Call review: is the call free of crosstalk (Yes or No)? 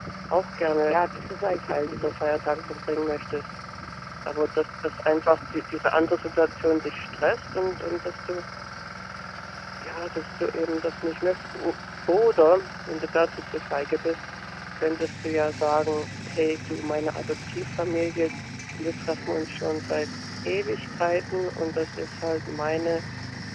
No